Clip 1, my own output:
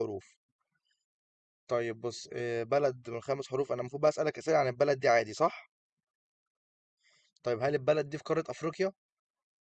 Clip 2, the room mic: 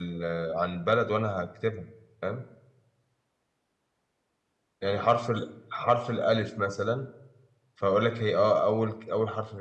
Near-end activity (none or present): present